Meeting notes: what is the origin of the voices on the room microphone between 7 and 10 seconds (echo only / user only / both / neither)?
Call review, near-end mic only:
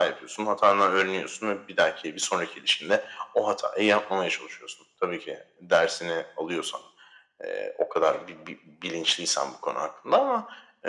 echo only